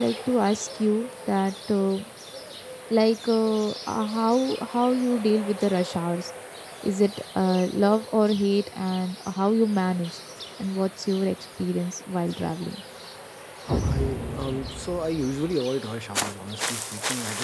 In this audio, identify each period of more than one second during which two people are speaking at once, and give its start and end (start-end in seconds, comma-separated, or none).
none